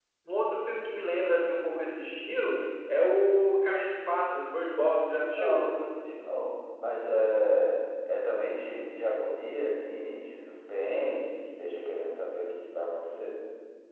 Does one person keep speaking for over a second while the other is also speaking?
No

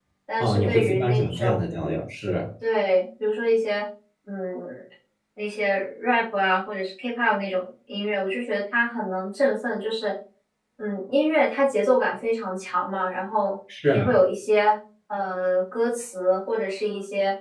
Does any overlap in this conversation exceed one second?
Yes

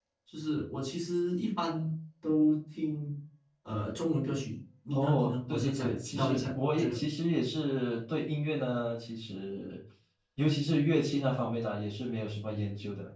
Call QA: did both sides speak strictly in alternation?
No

